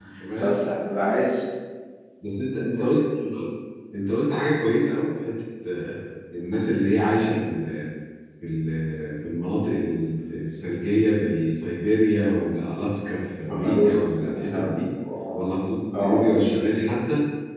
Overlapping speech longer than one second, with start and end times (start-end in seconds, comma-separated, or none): 13.5-14.7